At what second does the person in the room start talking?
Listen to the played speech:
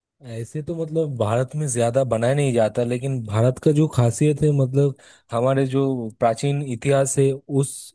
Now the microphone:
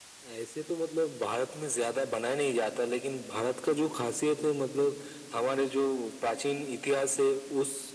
none

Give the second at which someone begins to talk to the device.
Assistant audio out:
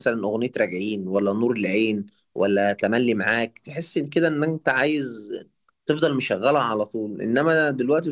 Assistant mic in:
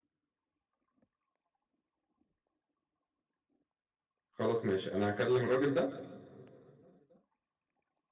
4.3 s

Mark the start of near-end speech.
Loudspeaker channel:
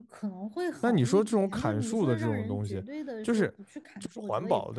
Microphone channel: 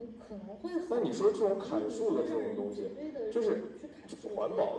none

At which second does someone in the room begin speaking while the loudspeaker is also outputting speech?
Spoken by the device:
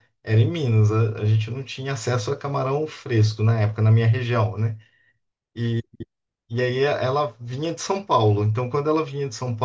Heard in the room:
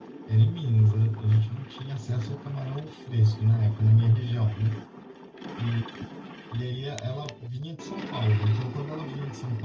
none

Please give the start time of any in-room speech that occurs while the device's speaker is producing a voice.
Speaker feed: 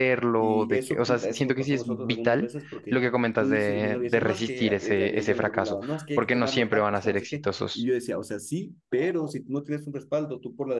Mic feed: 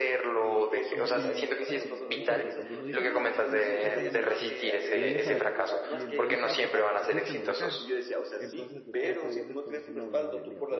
0.9 s

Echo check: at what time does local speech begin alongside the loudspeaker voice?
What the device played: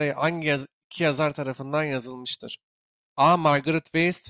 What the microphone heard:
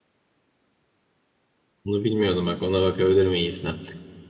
1.8 s

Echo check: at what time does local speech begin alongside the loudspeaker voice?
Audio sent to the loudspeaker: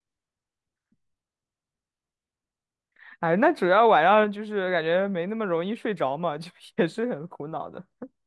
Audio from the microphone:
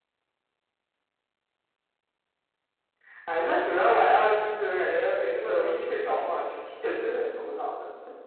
5.4 s

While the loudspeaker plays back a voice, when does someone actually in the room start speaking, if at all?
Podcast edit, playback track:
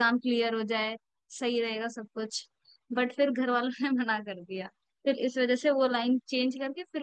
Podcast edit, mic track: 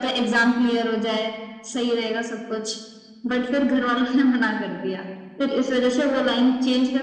none

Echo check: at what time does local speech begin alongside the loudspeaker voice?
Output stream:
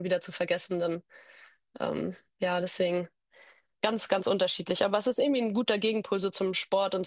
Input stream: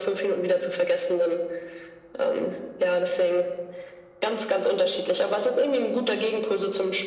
none

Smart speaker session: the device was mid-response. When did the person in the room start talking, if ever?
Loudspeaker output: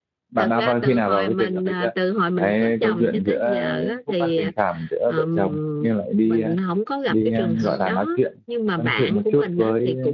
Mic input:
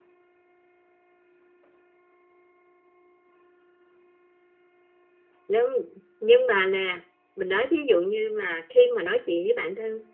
5.5 s

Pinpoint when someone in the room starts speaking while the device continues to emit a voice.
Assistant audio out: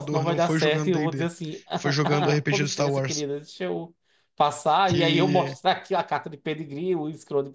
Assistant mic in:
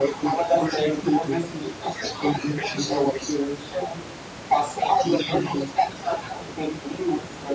none

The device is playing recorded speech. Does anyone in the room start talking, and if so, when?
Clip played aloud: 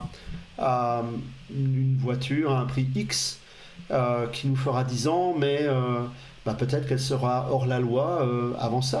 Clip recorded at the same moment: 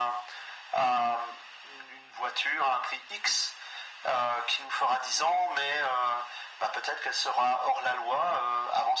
none

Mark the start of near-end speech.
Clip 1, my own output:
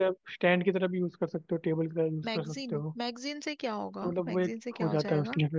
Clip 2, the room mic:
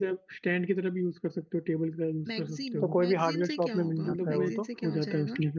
2.6 s

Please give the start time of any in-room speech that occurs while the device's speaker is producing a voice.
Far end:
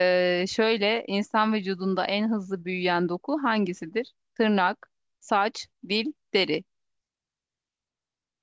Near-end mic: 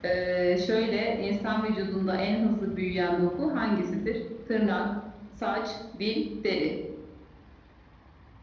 none

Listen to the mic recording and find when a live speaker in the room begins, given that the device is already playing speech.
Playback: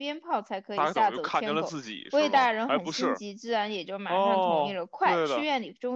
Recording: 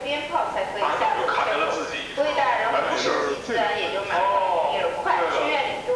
2.8 s

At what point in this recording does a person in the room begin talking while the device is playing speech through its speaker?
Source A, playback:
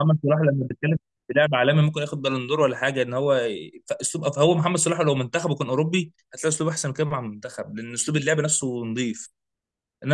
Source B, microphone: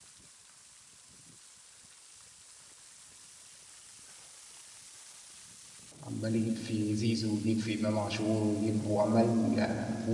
6.0 s

